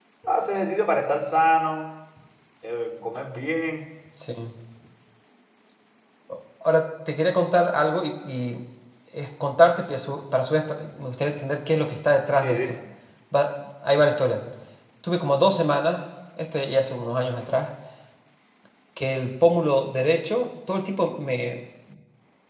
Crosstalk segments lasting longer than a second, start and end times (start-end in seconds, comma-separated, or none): none